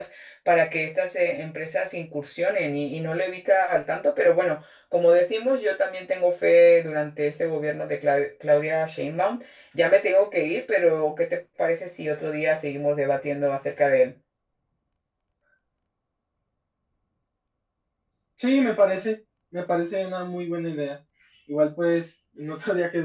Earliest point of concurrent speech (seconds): none

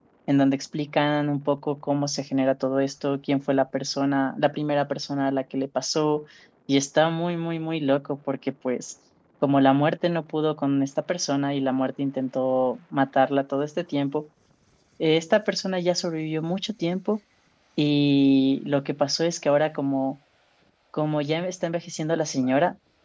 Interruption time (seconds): none

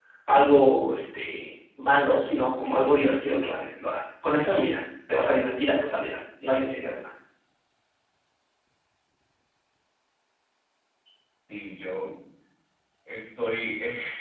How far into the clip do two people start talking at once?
none

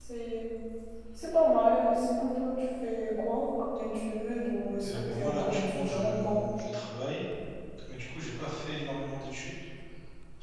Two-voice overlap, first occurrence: 5 s

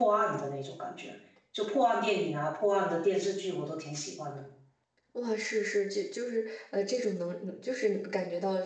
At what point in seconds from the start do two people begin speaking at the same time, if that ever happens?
none

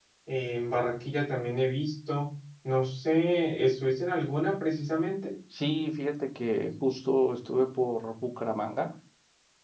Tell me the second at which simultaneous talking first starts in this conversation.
none

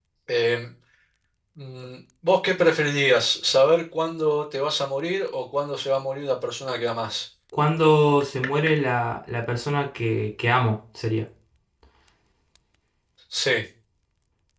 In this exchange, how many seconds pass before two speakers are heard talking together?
none

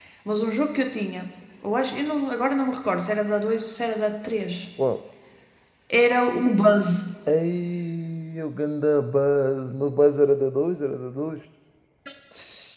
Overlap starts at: none

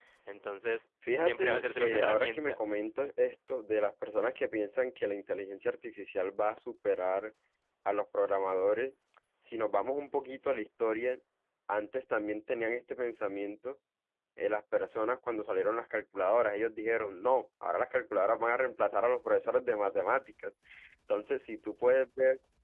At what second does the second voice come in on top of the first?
1 s

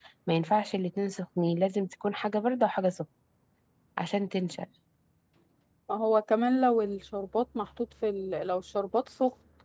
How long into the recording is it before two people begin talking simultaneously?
none

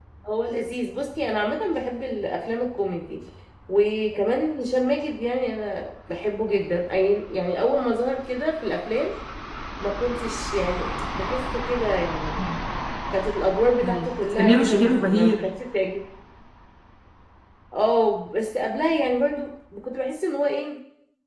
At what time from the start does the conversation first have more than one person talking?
14 s

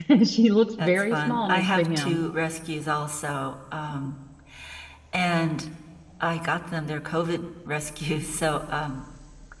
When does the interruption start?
1 s

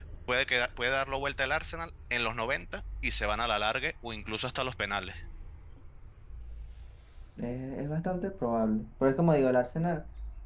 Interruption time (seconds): none

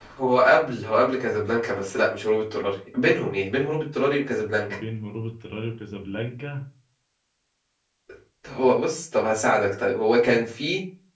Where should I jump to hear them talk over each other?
none

